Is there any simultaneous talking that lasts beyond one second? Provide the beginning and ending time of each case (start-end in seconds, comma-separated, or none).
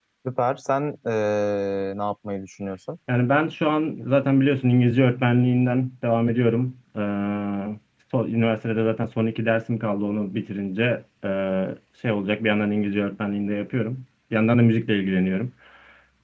none